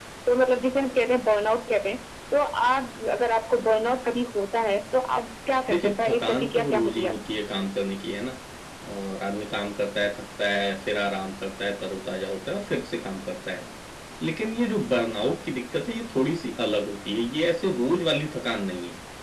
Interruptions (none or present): present